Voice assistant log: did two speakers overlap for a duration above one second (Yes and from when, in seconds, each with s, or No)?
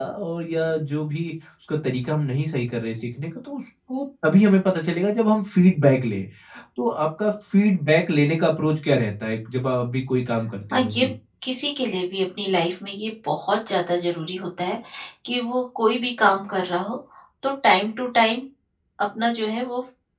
No